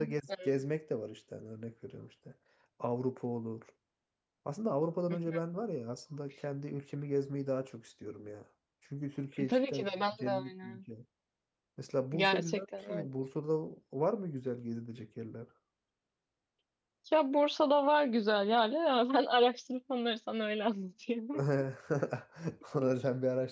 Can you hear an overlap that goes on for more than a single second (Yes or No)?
Yes